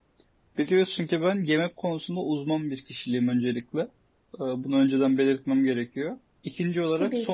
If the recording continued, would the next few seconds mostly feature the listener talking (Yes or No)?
No